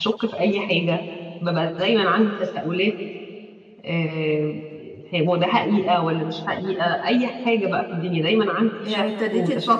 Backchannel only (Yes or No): No